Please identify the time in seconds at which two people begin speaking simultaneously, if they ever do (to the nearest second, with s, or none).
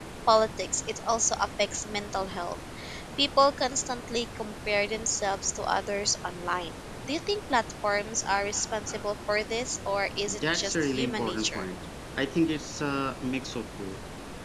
10 s